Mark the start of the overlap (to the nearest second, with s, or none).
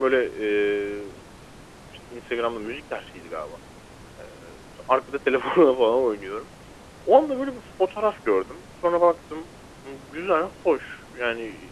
none